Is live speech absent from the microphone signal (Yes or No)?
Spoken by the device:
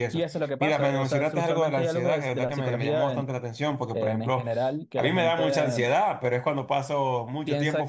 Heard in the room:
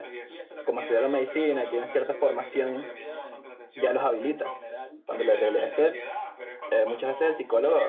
No